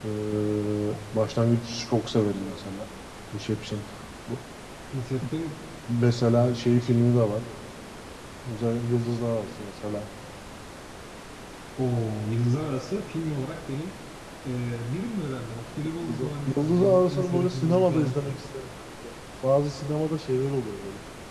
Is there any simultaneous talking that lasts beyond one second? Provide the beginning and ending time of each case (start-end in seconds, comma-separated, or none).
16.0-18.3